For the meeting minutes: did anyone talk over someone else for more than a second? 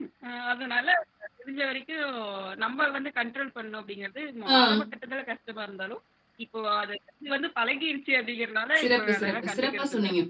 Yes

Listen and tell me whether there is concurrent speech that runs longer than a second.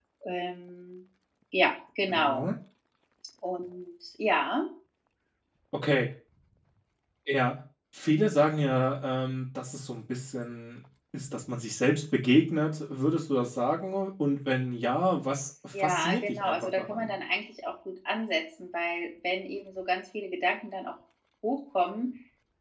Yes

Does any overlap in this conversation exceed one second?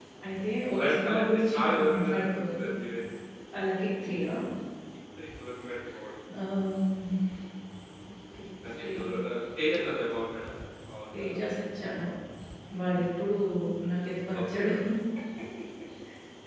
Yes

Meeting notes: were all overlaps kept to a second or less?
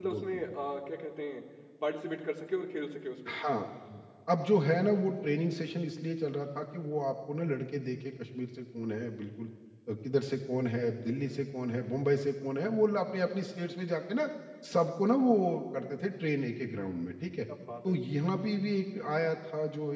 Yes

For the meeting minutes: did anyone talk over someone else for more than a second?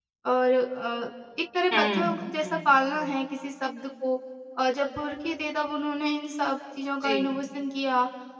Yes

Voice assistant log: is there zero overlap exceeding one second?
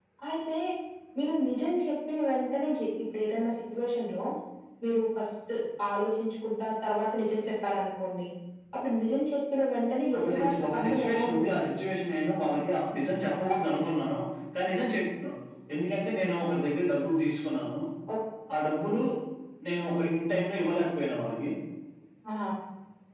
No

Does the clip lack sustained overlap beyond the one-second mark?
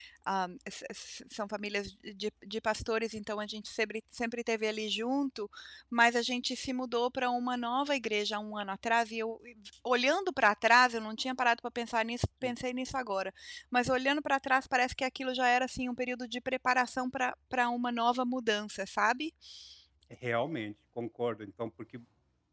Yes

